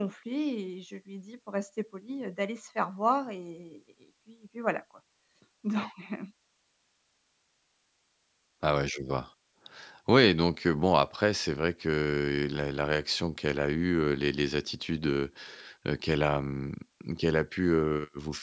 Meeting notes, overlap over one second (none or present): none